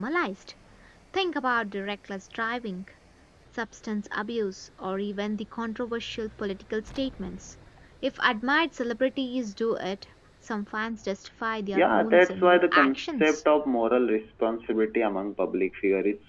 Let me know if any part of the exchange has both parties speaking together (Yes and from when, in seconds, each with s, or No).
Yes, from 11.7 s